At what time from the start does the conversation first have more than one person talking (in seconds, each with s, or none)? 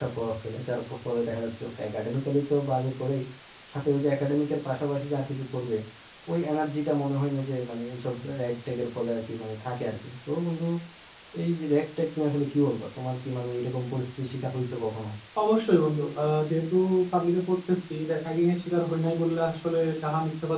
none